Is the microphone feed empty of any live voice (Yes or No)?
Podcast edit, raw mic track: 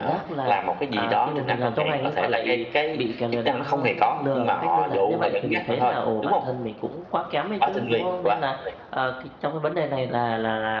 No